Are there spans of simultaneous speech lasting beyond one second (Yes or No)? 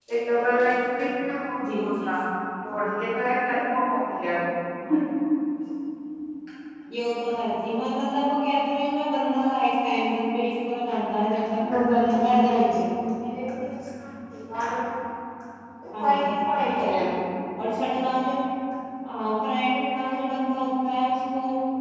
Yes